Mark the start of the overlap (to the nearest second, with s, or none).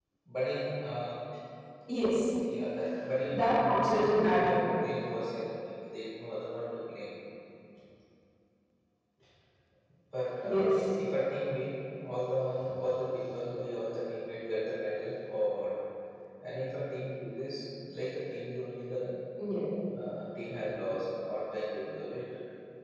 3 s